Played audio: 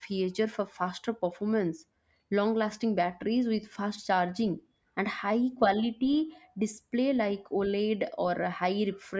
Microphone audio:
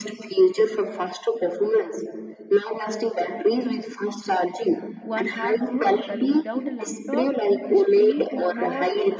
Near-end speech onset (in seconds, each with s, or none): 5.0 s